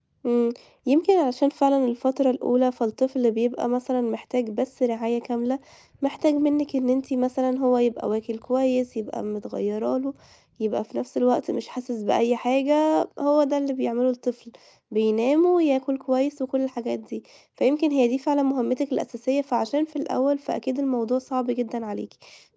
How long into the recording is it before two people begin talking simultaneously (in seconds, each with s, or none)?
none